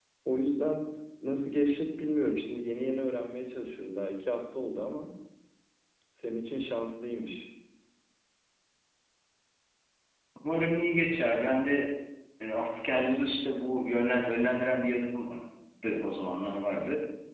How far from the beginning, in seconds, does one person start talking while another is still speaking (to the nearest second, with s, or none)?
none